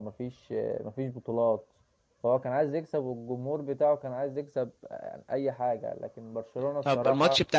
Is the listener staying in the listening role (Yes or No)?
No